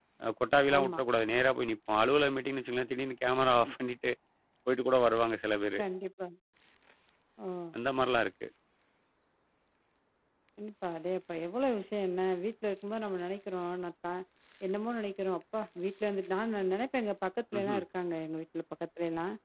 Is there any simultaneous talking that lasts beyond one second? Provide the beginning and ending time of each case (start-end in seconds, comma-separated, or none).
none